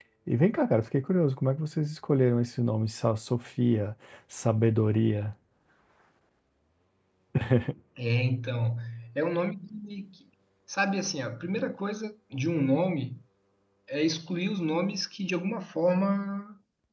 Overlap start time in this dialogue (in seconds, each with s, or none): none